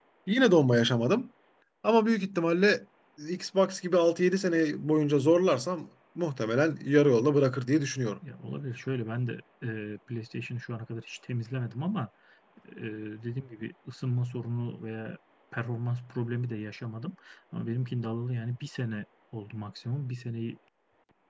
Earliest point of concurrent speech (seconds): none

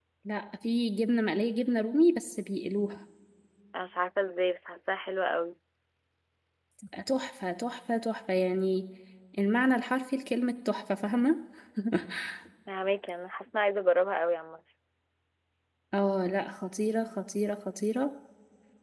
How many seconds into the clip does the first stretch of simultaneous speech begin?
none

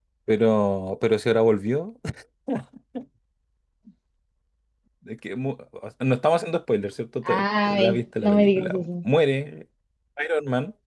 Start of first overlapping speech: 7.2 s

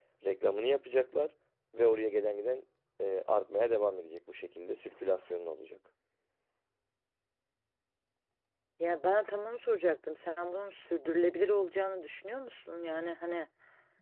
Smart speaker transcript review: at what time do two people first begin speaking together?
none

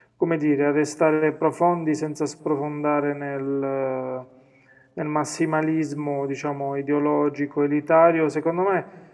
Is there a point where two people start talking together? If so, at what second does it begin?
none

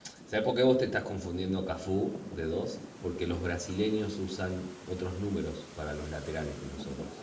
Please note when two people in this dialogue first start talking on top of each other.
none

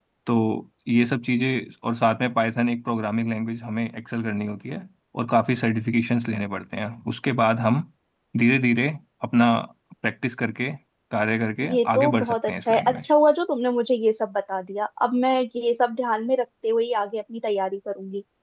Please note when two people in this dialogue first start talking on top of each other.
11.7 s

